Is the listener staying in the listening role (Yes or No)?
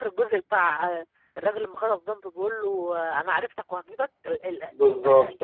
No